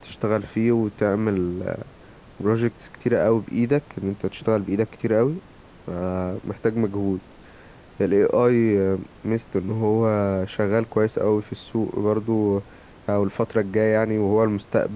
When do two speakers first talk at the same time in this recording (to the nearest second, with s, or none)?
none